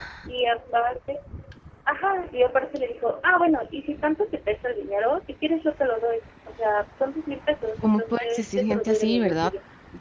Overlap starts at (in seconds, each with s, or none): 7.8 s